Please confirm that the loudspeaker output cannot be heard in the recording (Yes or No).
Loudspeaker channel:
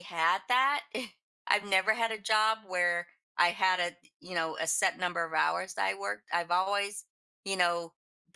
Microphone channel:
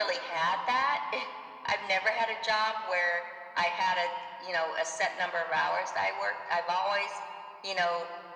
No